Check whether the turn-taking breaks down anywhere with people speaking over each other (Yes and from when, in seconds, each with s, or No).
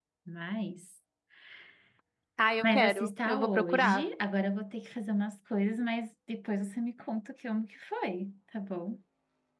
Yes, from 2.6 s